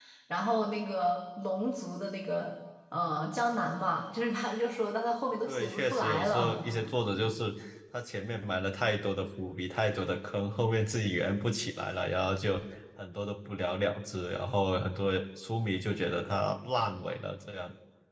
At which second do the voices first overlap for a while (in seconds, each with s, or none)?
5.5 s